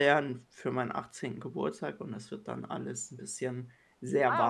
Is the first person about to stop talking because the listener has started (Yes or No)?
Yes